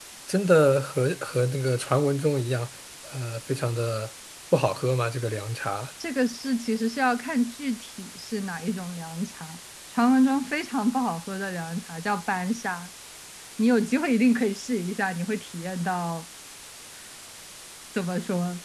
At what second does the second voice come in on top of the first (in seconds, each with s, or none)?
none